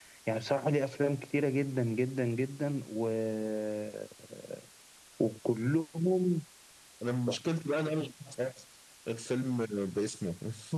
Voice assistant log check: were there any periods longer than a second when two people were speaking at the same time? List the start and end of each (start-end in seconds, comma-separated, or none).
none